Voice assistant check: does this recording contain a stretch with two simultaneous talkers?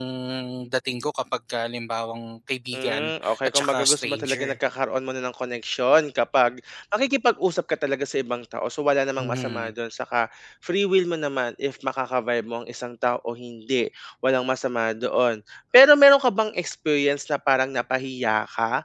Yes, from 2.7 s

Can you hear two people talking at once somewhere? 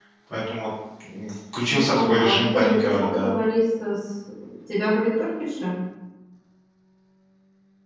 Yes, from 1.7 s

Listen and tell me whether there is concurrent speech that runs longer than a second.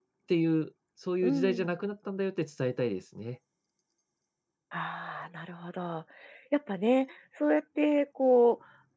No

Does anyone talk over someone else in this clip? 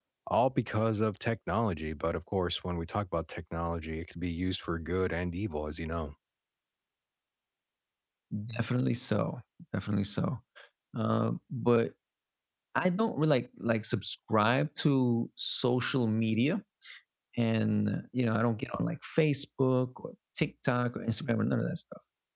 No

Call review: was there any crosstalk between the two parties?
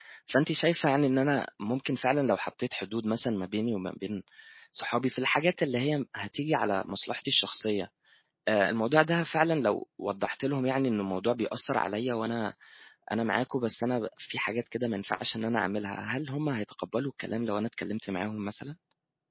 No

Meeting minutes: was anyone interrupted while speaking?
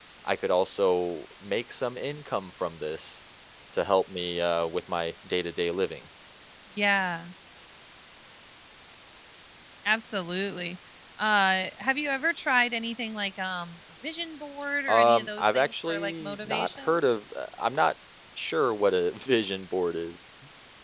Yes, from 14.9 s

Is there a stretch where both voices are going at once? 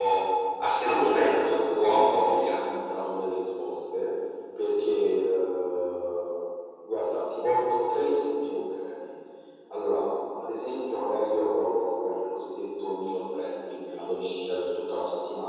Yes, from 0.9 s

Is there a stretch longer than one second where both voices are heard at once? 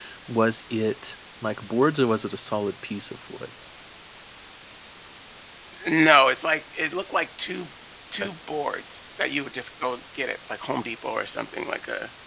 No

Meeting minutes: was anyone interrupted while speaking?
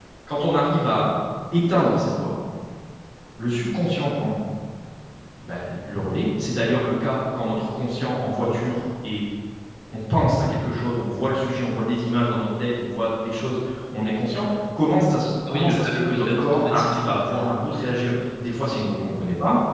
Yes, from 15.5 s

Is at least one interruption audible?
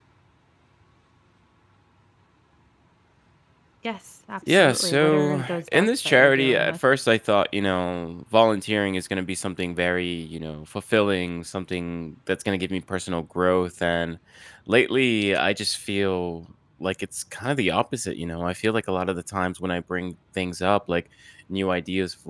Yes, from 4.5 s

